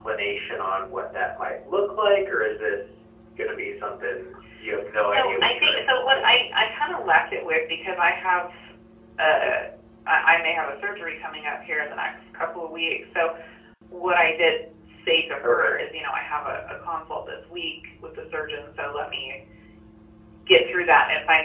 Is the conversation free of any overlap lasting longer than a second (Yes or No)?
No